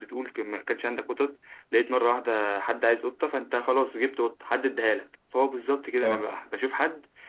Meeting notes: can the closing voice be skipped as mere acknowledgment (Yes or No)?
Yes